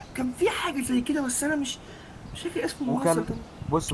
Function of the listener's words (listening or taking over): taking over